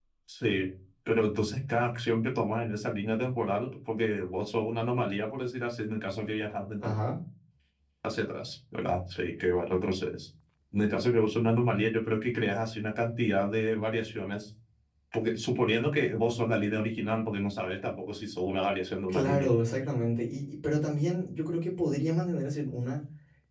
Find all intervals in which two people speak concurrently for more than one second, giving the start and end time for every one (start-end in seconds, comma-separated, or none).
none